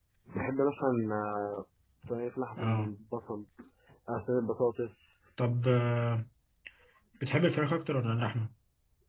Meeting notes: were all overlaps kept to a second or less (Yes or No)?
Yes